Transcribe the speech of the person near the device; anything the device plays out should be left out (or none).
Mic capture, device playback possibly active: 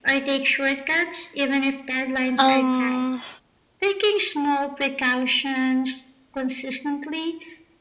Um